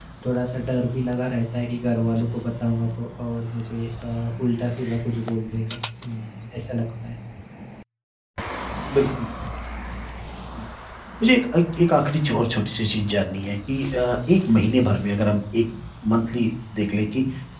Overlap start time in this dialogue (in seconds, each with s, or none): none